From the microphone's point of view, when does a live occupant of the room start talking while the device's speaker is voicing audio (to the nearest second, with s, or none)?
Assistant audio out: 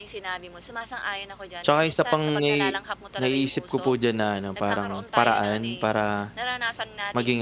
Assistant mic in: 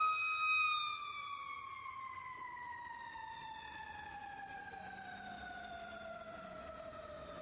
none